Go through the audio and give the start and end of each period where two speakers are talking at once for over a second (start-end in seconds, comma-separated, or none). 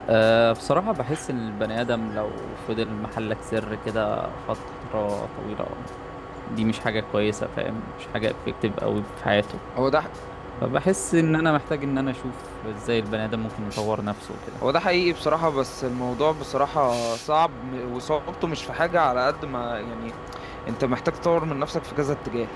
none